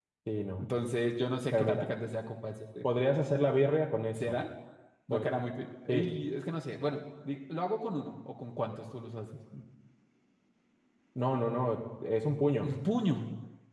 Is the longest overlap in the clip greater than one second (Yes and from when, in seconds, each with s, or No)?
No